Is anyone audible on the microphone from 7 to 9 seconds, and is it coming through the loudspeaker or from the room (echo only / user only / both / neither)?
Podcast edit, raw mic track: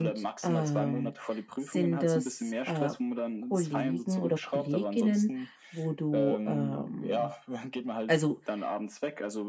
both